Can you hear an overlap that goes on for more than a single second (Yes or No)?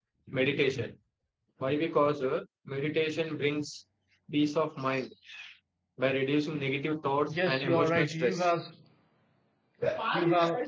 Yes